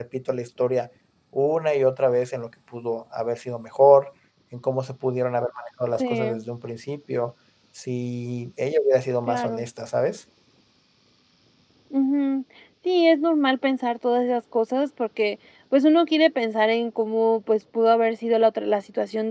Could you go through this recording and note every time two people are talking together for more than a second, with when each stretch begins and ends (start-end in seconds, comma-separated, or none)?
none